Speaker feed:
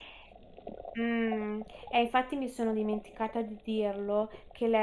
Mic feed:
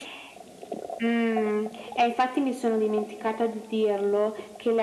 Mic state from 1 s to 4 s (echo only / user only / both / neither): echo only